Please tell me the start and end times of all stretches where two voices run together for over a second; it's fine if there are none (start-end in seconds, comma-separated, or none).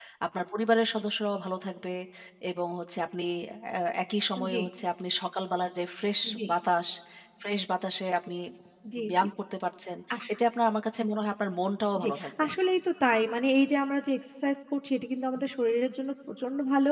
none